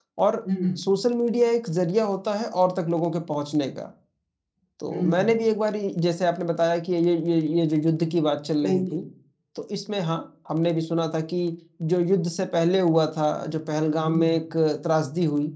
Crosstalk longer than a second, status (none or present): none